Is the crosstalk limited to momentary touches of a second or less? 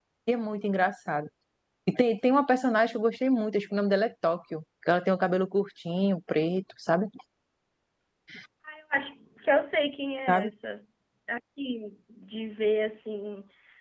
Yes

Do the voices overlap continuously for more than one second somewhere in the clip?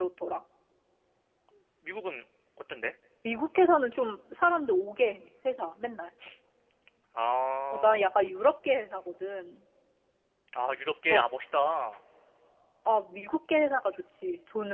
No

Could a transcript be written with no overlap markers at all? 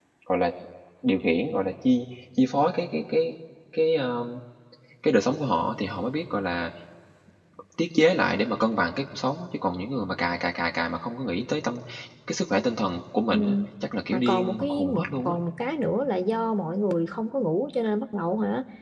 No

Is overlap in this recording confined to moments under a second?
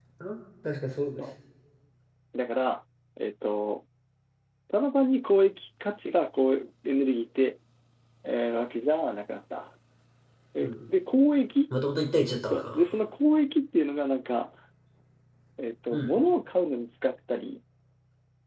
Yes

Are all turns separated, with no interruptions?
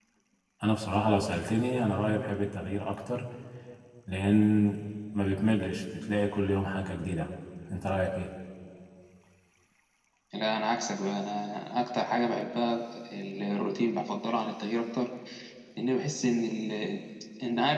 Yes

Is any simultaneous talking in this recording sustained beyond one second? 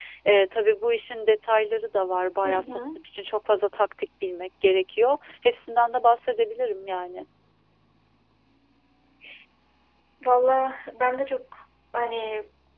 No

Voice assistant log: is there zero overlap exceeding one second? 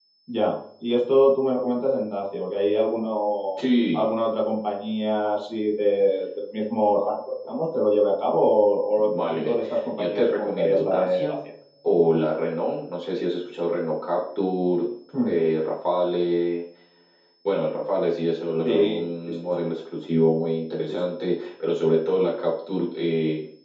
No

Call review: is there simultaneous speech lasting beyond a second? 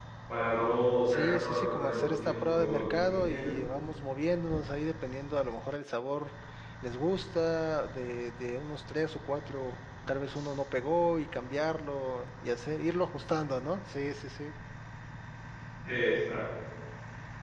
Yes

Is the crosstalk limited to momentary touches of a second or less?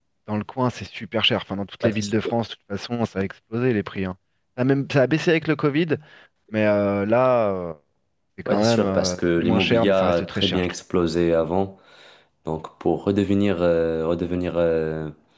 No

